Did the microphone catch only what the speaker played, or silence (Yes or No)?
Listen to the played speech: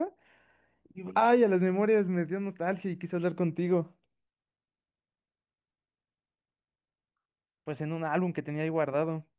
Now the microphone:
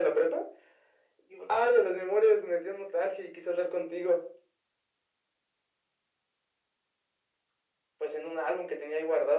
Yes